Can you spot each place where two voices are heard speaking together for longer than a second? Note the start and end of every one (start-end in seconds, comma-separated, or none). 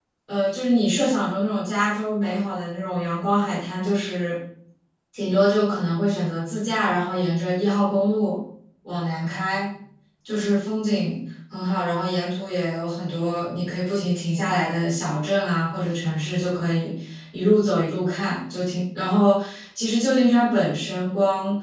none